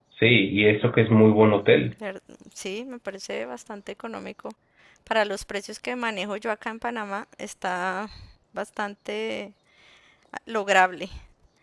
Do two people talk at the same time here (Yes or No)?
No